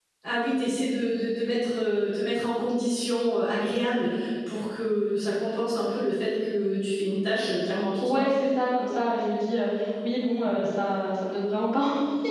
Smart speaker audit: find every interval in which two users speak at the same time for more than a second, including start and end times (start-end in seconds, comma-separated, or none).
none